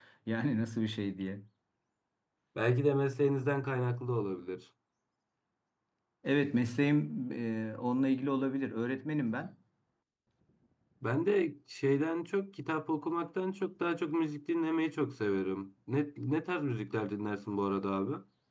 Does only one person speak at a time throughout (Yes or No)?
Yes